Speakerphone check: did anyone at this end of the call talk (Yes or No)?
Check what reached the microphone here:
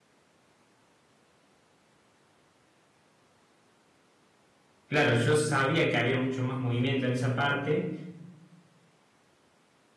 Yes